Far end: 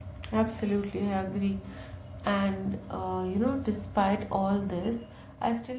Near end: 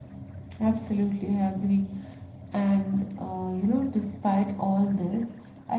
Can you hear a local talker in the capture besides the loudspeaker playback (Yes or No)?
No